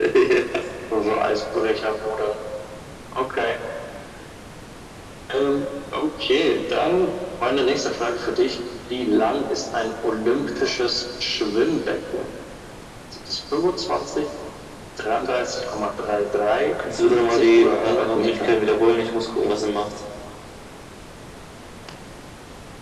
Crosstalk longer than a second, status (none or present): present